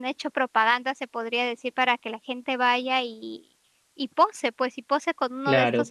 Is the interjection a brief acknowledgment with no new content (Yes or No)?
No